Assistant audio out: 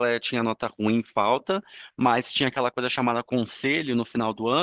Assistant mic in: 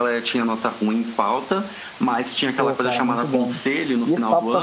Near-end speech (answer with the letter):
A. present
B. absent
A